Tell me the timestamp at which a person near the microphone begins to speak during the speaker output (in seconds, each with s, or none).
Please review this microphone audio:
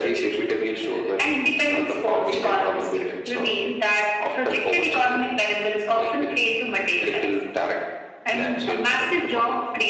none